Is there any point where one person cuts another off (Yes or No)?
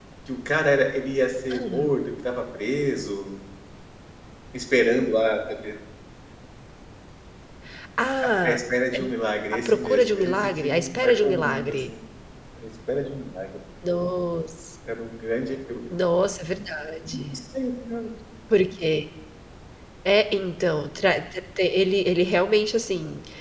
Yes